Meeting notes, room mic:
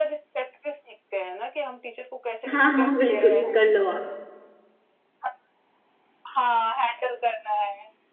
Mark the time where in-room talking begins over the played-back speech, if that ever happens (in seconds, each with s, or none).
2.5 s